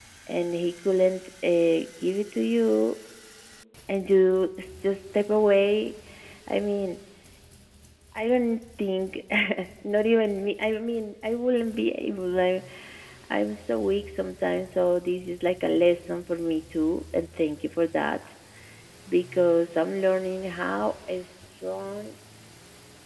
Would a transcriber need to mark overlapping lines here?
No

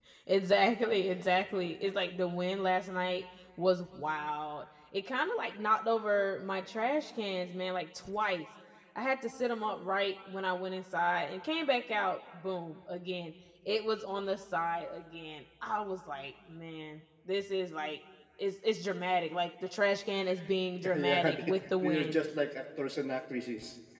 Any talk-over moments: Yes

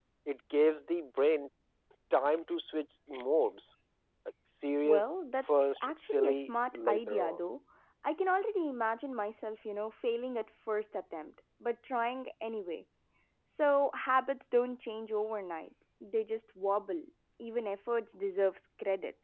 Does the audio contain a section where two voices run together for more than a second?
Yes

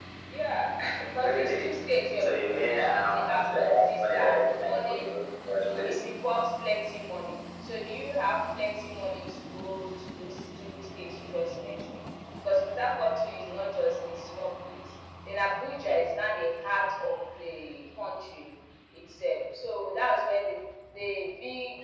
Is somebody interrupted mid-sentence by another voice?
Yes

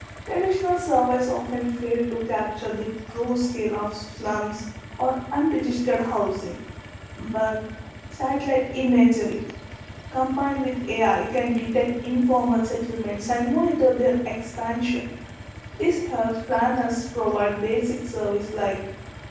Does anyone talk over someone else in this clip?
No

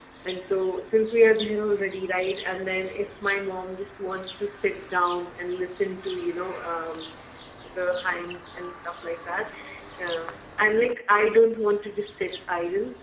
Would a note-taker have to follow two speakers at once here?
No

